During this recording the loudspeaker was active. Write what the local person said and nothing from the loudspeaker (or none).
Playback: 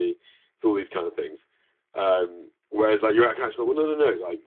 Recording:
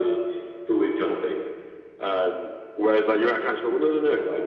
none